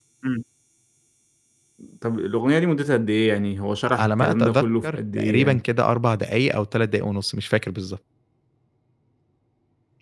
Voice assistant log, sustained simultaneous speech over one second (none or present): present